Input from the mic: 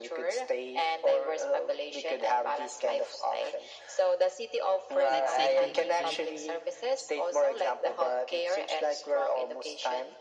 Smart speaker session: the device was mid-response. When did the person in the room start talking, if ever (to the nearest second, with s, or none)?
5 s